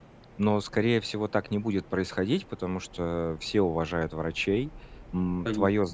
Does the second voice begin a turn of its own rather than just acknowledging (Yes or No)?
No